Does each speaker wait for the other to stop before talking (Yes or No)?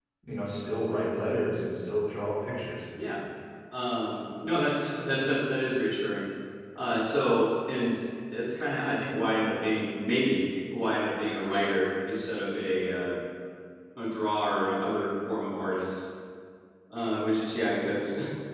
Yes